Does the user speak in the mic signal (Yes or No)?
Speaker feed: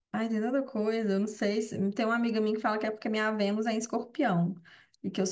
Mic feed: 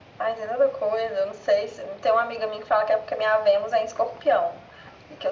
No